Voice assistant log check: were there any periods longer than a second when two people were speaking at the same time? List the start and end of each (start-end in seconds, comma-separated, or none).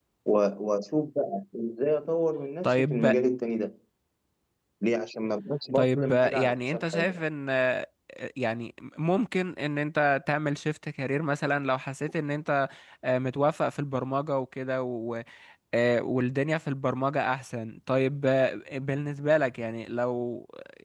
5.8-7.2